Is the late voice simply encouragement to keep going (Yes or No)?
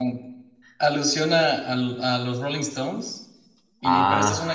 Yes